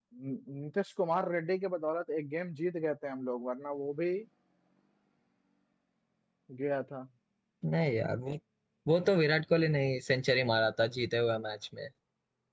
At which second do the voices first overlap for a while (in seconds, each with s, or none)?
none